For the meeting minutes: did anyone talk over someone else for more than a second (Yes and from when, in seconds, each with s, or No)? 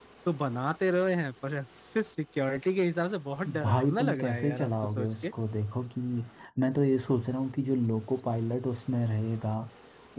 Yes, from 3.4 s